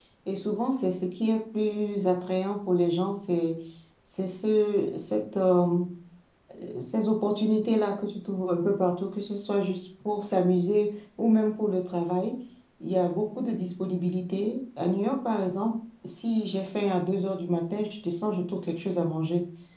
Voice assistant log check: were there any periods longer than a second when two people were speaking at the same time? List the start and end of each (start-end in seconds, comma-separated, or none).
none